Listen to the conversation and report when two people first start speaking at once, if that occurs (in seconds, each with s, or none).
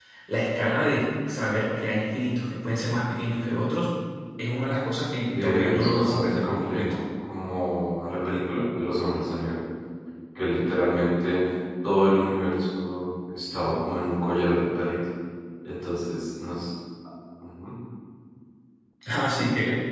5.4 s